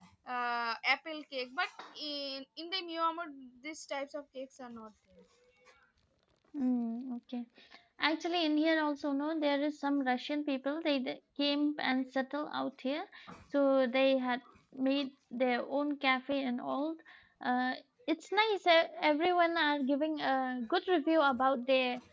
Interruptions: none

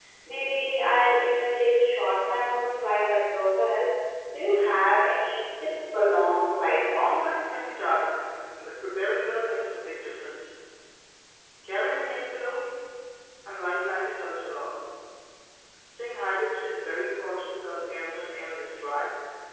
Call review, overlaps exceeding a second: none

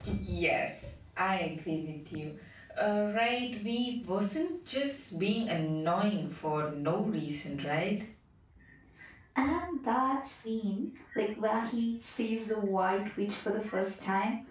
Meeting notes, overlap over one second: none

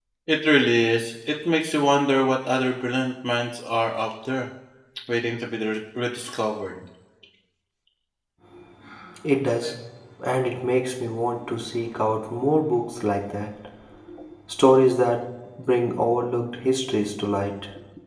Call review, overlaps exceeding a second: none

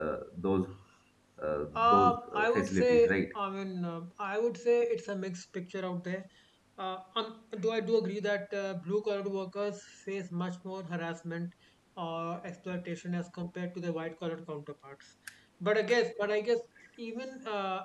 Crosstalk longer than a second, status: present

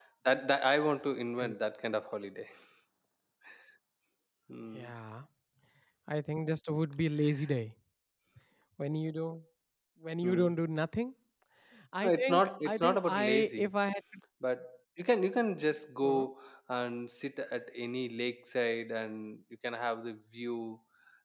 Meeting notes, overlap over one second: present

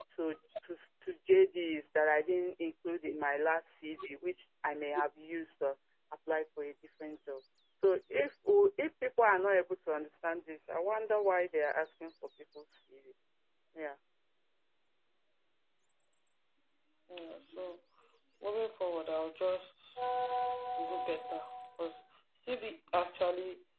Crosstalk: none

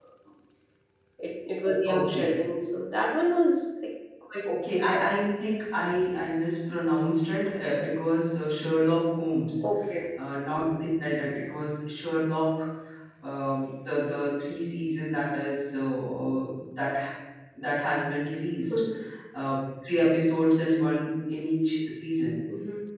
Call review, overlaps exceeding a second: none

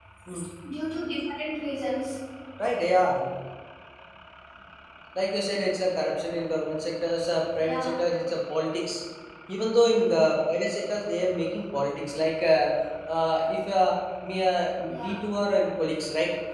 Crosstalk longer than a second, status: none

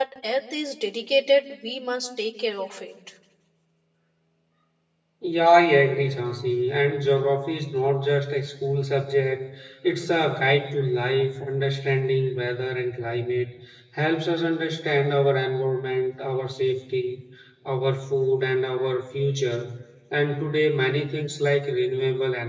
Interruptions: none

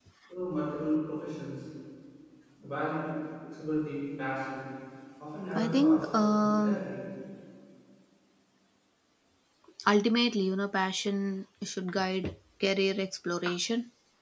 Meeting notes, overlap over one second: present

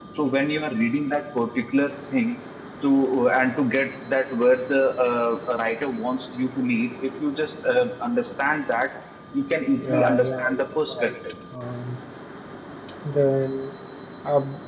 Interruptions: present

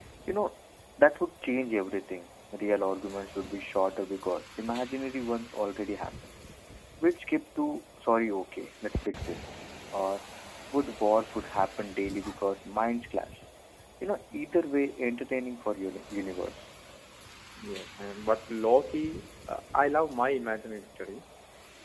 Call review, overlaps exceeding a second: none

